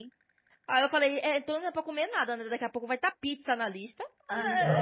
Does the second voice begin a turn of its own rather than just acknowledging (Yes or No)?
Yes